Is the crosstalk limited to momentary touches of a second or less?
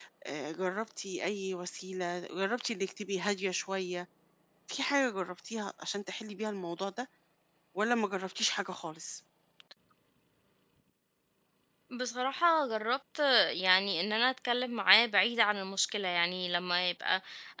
Yes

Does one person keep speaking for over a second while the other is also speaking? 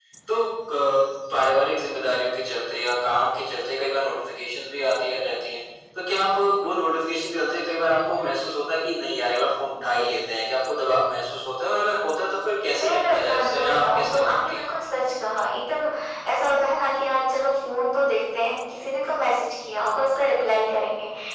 Yes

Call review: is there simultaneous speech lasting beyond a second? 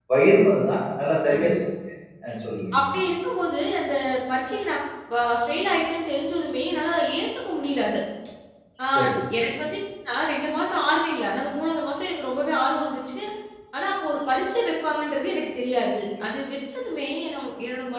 No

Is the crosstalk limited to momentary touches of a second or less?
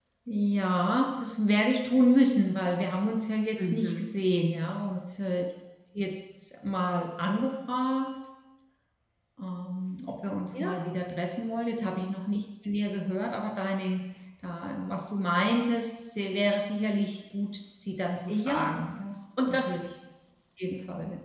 Yes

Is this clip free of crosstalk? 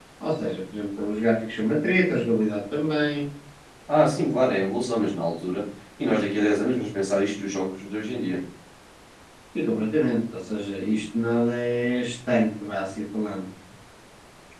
Yes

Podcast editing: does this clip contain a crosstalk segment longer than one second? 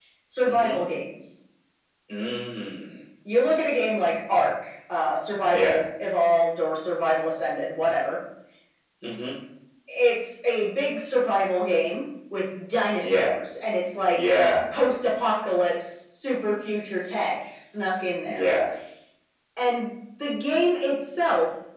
No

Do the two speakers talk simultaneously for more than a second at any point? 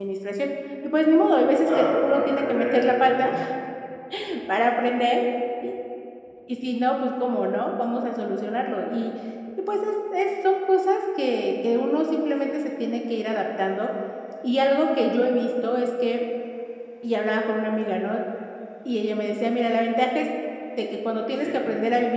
Yes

